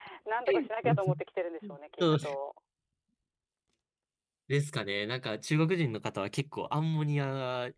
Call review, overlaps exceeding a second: none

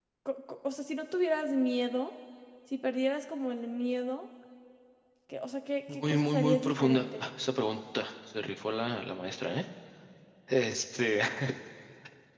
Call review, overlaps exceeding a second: present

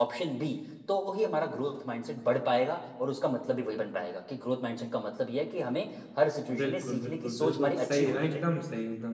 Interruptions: present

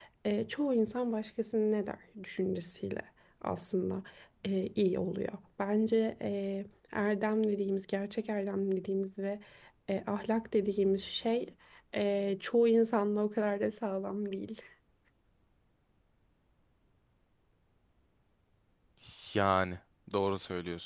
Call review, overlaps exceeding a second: none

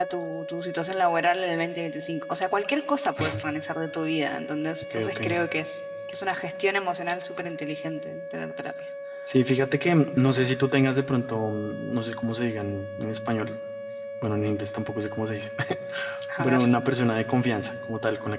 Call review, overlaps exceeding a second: none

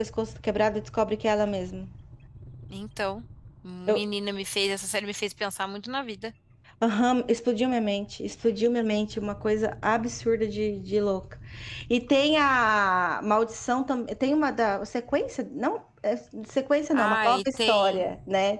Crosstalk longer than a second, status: present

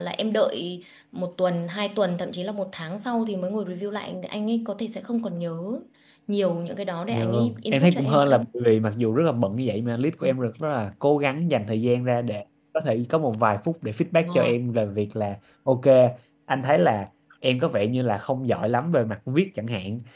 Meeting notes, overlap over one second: present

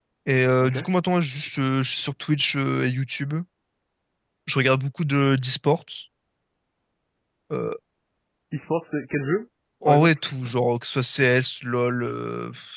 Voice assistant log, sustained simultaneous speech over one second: none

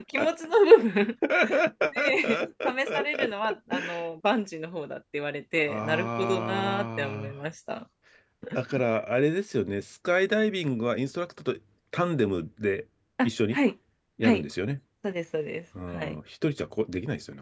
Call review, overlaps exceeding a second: present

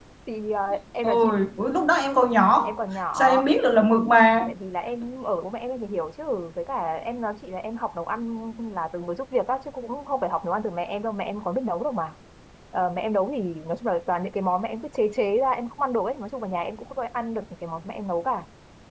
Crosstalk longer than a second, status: none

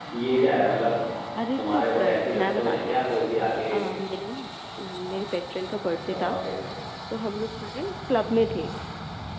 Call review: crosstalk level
present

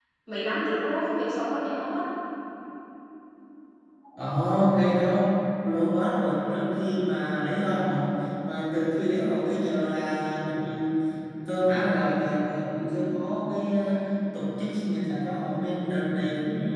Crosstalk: none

